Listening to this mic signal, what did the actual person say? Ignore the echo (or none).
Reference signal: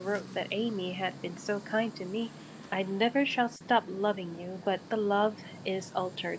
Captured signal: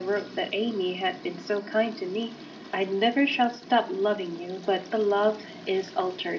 none